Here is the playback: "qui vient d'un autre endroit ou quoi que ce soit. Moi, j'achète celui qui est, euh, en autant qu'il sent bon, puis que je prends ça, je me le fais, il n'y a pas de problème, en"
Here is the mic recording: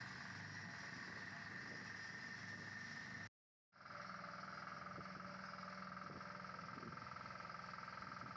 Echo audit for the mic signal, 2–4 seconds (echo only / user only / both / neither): neither